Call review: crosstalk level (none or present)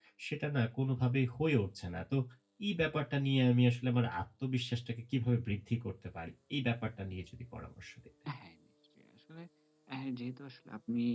none